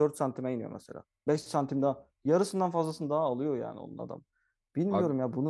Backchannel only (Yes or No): Yes